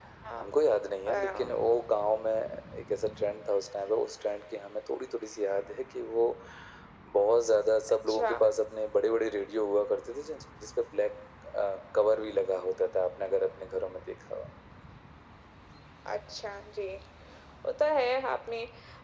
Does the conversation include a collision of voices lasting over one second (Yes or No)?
No